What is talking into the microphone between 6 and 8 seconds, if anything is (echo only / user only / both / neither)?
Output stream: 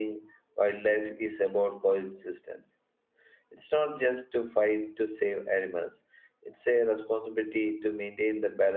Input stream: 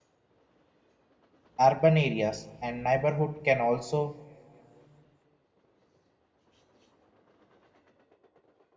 neither